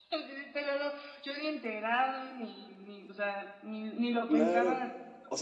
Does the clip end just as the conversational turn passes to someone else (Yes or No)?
Yes